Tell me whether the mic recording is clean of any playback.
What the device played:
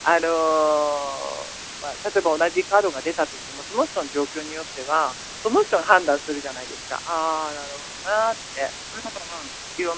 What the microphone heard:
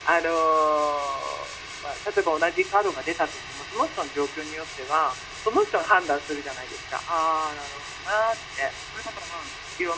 No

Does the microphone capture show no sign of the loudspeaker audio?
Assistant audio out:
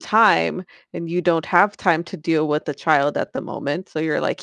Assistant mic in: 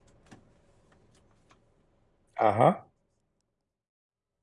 Yes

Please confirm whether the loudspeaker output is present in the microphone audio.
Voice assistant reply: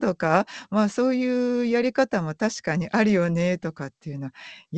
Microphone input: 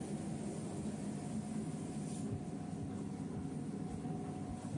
No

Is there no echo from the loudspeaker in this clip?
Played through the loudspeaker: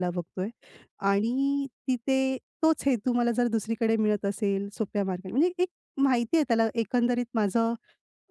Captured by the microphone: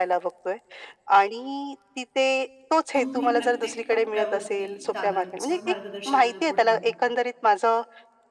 No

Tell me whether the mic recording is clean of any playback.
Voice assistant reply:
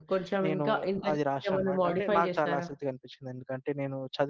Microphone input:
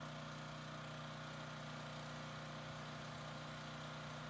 Yes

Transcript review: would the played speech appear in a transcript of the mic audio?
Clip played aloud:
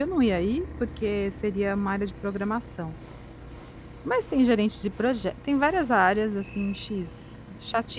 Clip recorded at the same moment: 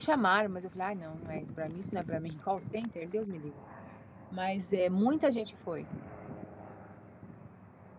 No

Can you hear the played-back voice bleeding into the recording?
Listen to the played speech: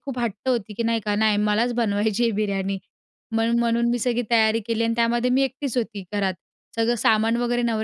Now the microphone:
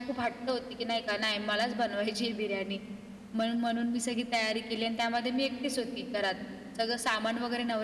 Yes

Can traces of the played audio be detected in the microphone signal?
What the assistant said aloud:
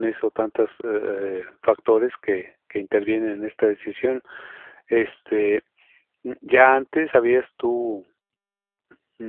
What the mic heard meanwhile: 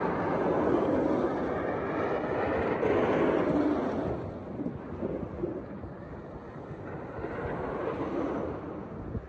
No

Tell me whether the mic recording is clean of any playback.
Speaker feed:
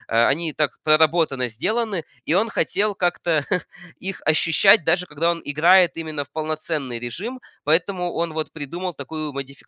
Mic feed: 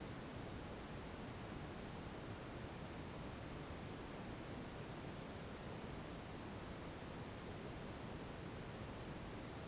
Yes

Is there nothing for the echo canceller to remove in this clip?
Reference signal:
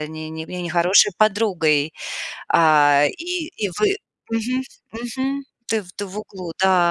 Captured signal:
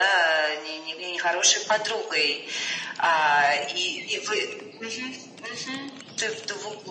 No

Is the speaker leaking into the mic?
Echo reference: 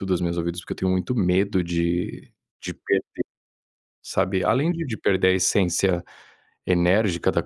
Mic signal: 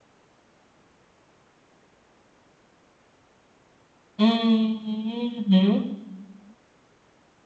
No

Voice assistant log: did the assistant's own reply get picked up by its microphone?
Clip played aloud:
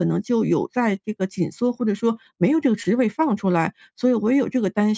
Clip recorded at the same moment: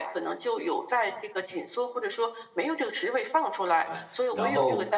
Yes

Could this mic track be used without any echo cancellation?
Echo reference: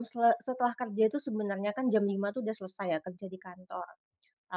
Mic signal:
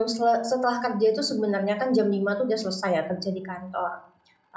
No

